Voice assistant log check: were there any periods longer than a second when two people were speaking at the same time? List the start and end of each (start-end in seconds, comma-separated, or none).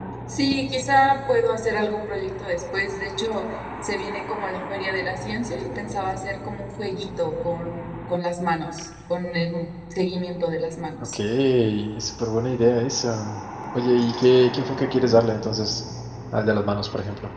none